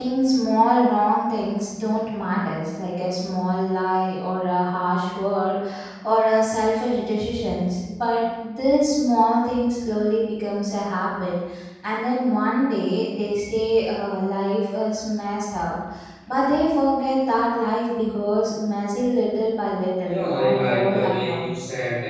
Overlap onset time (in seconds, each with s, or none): 20.0 s